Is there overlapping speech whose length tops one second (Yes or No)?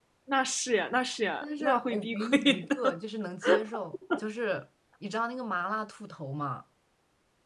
Yes